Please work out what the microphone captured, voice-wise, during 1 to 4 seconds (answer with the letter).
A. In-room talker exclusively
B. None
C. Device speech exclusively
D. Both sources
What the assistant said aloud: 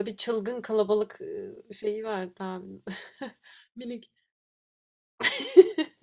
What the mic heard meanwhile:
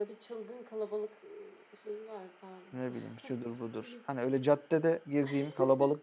D